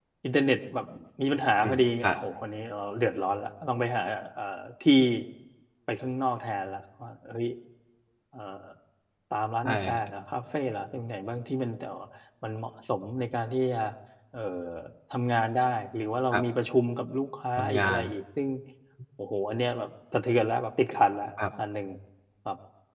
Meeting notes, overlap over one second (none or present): none